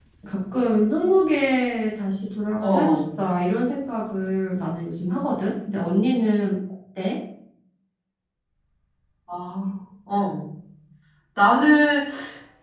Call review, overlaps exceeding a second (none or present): none